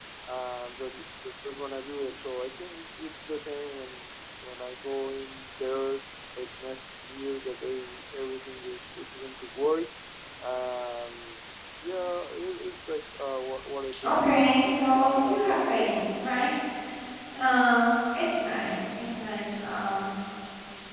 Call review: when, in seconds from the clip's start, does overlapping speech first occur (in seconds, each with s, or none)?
14.0 s